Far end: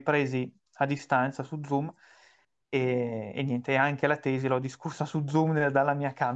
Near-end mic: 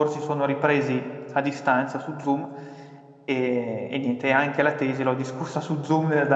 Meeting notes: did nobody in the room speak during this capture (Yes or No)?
Yes